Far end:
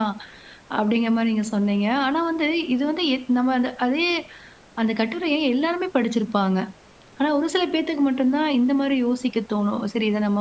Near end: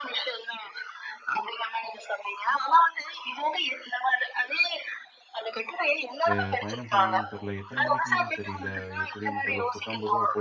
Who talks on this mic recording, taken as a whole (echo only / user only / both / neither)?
both